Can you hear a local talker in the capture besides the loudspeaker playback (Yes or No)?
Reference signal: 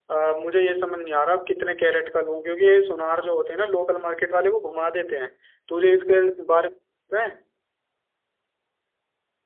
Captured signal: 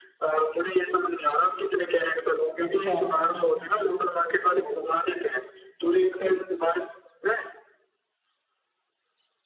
Yes